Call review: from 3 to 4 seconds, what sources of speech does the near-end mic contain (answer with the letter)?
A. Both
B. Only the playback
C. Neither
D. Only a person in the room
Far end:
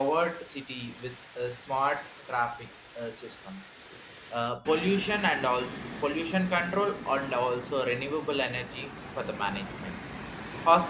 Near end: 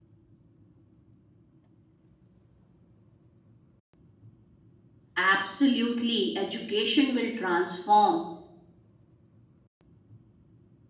C